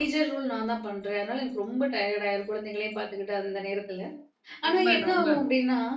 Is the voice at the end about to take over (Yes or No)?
No